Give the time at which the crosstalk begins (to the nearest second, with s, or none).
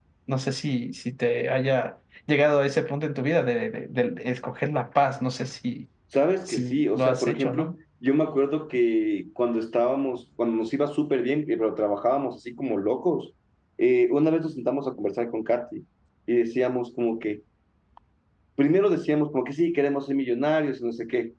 6 s